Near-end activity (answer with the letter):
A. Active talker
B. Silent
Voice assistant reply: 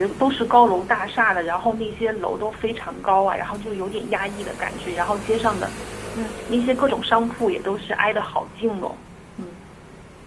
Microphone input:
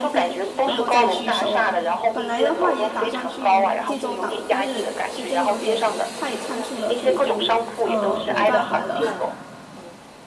A